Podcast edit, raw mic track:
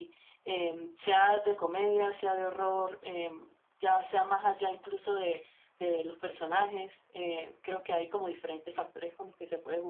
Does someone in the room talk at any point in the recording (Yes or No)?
Yes